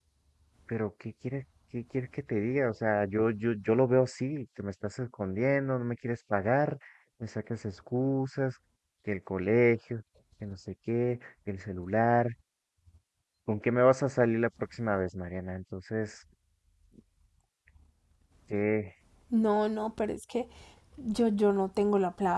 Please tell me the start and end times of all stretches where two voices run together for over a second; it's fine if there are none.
none

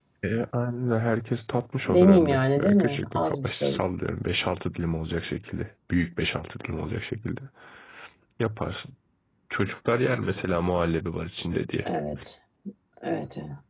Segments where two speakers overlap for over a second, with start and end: 1.9-3.8

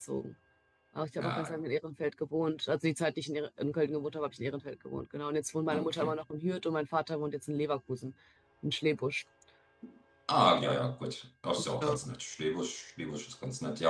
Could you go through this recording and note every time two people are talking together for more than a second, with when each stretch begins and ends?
none

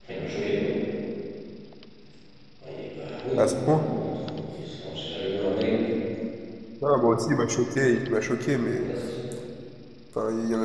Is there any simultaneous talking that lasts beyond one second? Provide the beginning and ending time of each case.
none

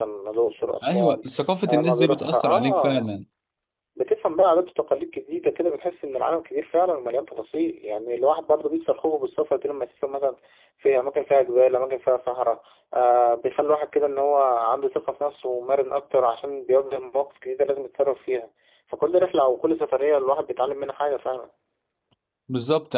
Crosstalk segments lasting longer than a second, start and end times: 1.7-3.1

